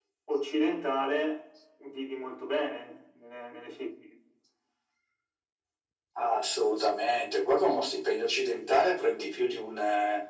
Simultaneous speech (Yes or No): No